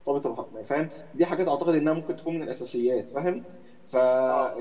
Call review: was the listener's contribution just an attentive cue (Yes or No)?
Yes